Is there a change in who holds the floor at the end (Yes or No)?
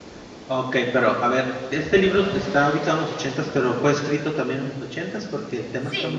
Yes